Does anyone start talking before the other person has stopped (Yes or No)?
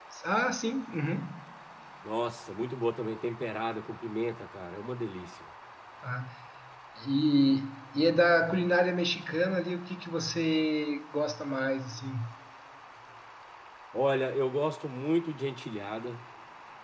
No